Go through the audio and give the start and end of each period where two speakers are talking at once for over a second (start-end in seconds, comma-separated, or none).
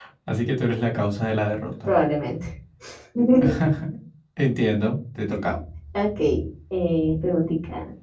none